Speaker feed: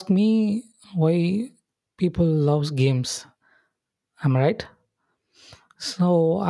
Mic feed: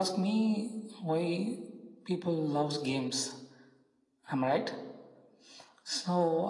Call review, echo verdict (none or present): present